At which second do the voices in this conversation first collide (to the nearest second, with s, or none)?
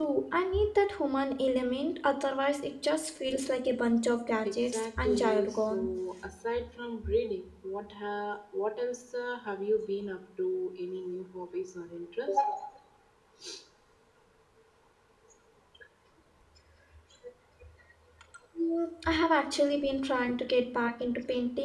4 s